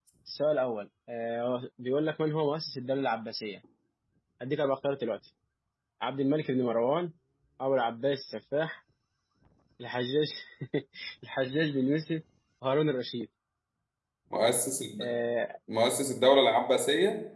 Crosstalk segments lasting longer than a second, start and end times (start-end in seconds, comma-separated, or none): none